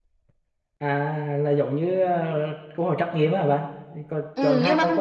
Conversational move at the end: taking over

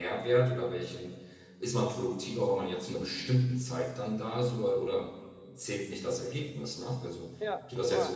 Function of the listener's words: listening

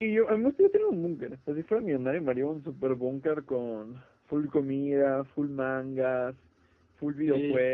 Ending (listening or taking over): taking over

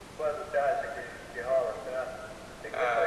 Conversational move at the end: taking over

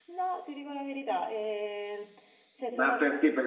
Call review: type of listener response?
taking over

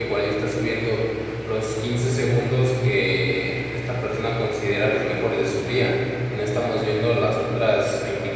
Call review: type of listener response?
listening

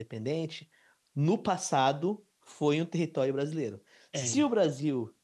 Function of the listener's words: listening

